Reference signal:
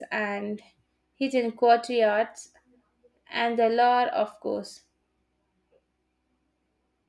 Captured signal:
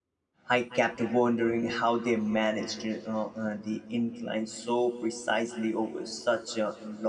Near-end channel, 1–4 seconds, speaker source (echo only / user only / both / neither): user only